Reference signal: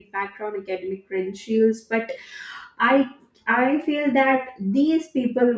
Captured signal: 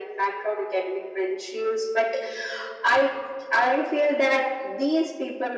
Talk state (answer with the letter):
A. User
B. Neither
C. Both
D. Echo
D